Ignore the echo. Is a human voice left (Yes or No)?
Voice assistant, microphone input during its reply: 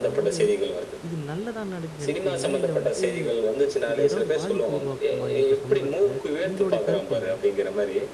Yes